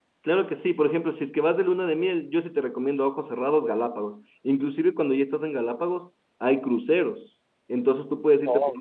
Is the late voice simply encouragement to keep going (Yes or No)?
Yes